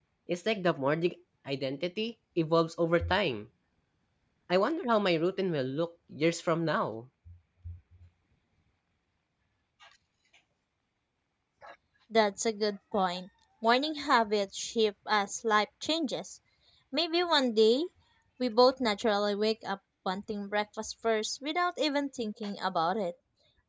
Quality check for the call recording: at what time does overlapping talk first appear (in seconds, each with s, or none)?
none